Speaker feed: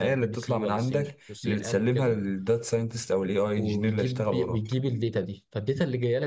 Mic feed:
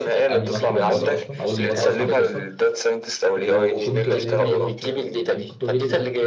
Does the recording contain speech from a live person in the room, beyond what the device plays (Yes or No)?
Yes